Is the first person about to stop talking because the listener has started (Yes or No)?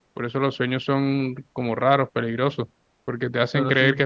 No